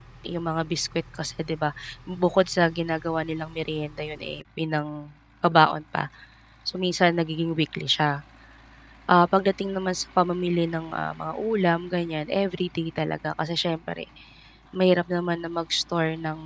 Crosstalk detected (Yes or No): No